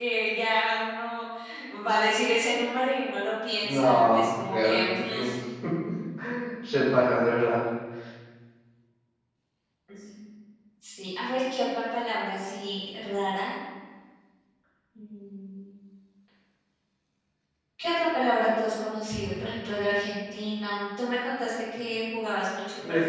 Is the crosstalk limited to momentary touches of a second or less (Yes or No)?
No